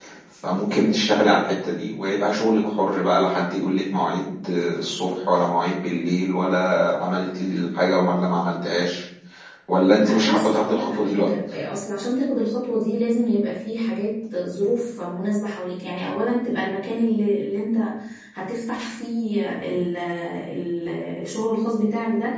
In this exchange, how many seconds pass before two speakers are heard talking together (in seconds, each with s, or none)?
9.9 s